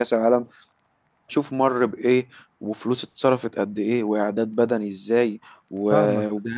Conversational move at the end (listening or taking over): listening